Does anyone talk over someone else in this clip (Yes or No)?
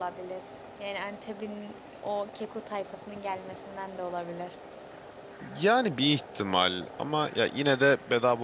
No